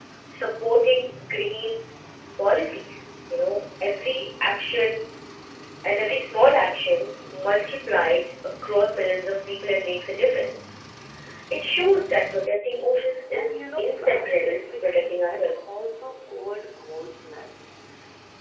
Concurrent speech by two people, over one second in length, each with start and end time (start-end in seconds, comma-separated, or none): 13.3-15.6